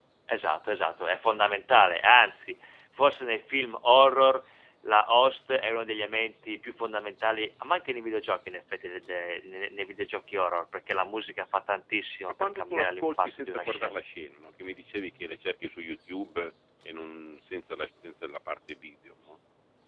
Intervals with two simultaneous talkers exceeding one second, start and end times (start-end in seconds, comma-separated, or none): 12.4-14.0